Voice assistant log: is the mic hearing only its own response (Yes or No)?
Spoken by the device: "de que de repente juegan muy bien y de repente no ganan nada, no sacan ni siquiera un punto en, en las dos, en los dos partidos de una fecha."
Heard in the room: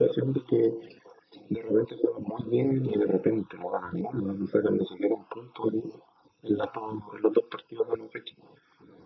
Yes